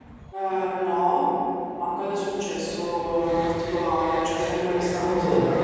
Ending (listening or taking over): listening